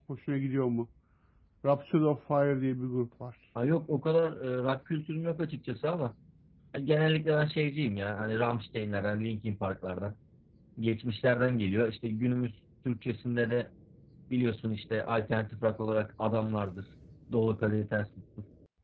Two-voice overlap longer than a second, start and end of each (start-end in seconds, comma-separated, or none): none